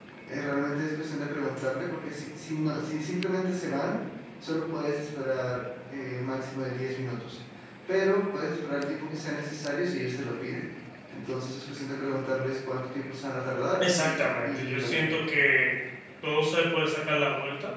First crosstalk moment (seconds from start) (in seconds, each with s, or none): 13.8 s